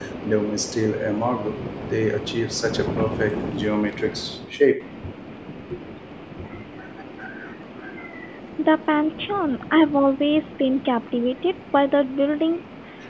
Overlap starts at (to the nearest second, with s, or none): none